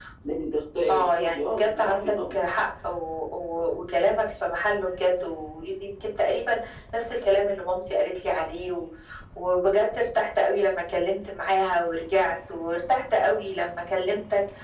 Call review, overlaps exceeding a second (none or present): present